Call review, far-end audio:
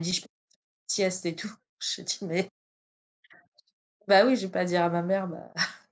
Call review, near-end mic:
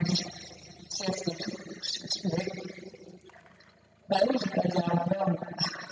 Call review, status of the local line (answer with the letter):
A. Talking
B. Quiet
B